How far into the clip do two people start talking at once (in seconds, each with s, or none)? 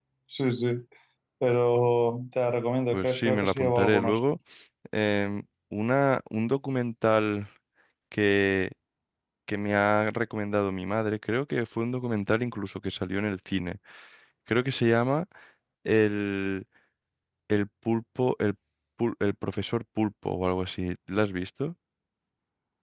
2.9 s